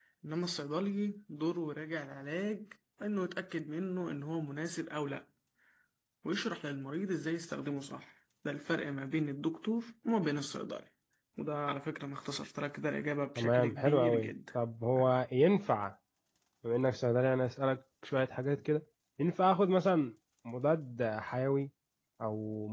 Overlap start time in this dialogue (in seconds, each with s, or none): 13.4 s